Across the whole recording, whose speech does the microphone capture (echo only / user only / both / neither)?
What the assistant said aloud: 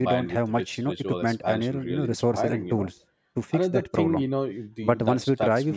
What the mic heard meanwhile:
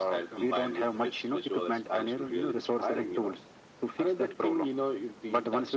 echo only